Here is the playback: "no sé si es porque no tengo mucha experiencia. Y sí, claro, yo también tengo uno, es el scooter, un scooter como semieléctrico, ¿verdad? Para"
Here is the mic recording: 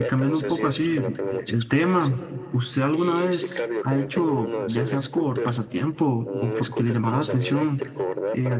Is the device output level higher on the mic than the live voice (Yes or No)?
No